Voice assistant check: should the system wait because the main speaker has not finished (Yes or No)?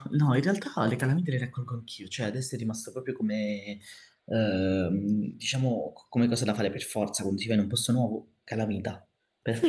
No